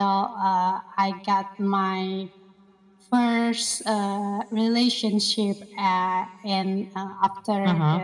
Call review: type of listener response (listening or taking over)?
listening